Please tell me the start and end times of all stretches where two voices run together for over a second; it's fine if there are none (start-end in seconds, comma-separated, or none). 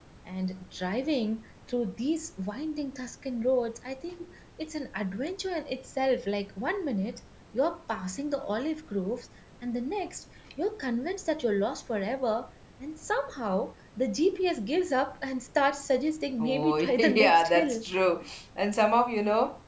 16.4-17.9